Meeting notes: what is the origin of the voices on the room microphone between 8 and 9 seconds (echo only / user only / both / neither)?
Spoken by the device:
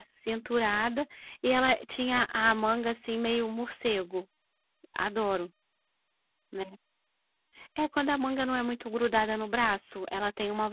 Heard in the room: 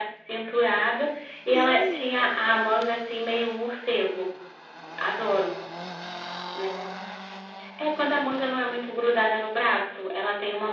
echo only